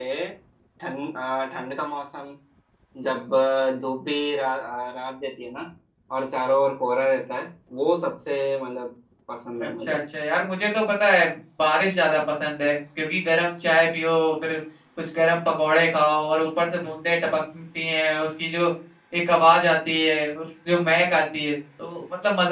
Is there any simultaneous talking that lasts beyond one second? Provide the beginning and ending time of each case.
none

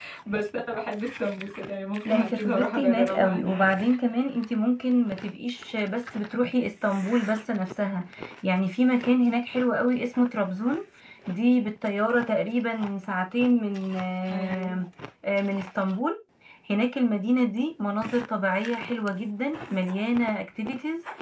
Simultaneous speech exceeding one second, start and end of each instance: 2.0-3.6

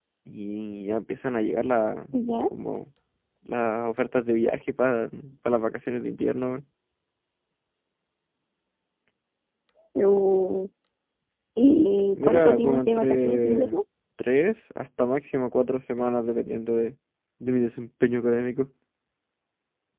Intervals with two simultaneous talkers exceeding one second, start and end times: 12.2-13.7

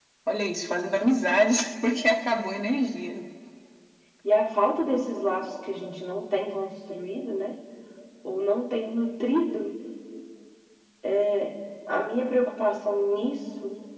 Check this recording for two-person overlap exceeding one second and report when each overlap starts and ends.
none

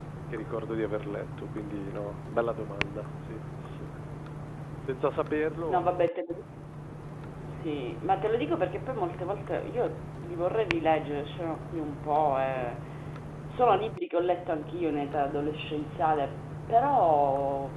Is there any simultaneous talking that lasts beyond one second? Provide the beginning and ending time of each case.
none

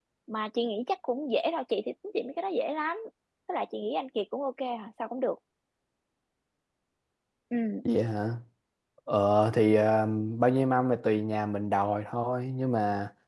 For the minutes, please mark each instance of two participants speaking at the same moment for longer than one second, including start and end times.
none

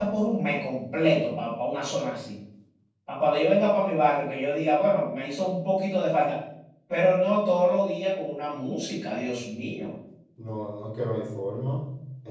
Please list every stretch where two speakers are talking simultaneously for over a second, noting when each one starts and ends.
none

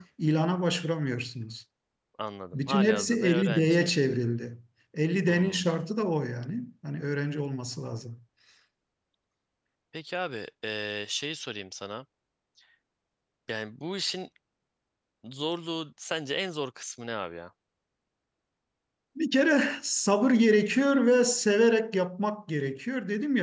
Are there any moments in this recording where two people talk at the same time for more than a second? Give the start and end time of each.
2.5-3.9

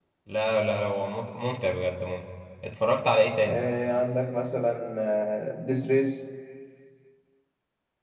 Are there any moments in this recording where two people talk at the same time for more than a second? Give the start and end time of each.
none

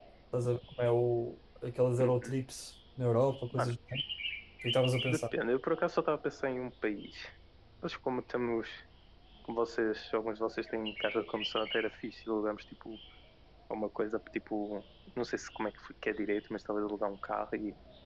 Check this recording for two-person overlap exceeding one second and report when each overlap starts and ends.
none

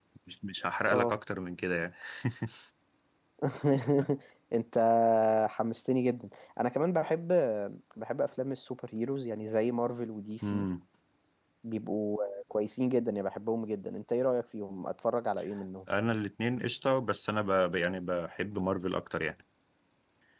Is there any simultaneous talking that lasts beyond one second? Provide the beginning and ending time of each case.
none

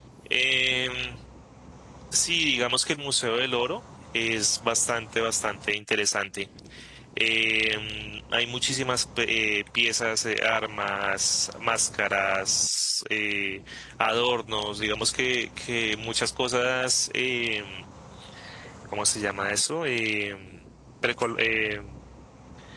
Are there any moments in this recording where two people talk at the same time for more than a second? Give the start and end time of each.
none

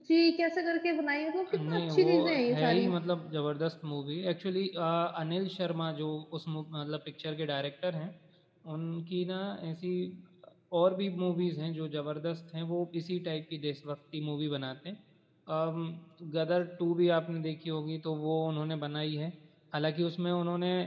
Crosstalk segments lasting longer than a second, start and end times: 1.7-2.9

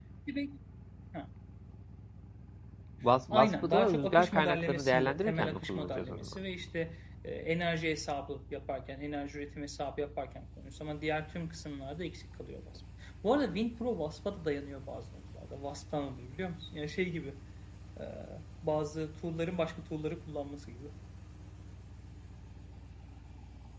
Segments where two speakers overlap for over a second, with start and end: 3.3-6.4

